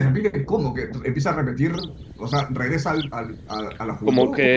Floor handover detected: Yes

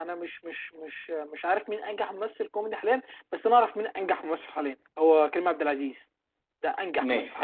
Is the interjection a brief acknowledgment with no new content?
No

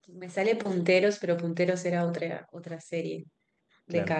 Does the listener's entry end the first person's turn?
No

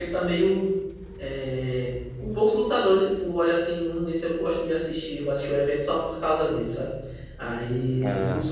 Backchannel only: Yes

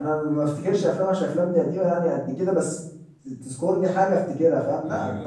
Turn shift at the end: Yes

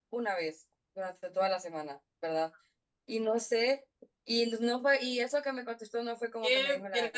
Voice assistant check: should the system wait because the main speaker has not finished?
No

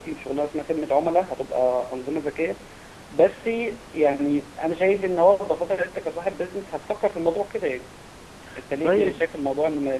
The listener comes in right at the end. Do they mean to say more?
No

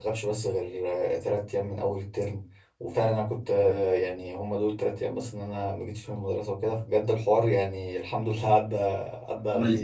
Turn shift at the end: Yes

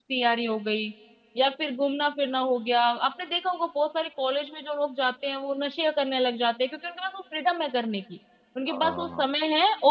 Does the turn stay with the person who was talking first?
Yes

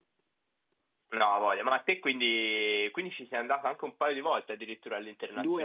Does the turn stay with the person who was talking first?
No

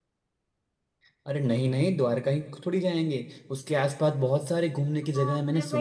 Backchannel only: No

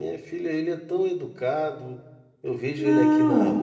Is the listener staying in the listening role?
Yes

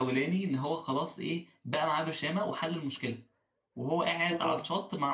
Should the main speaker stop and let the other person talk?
No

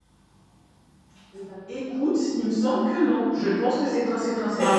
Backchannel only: Yes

